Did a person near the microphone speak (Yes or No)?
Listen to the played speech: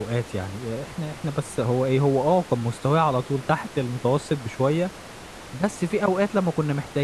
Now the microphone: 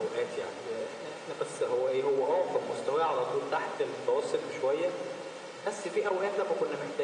No